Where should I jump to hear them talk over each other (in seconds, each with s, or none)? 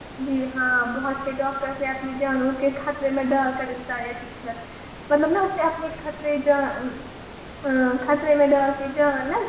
none